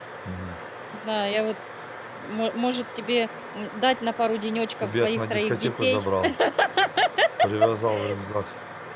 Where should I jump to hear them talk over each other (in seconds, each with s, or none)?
4.8 s